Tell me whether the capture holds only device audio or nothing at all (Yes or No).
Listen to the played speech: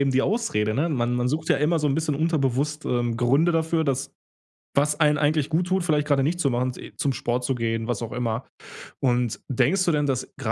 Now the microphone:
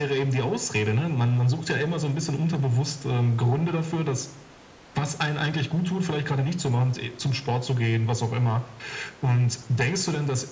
Yes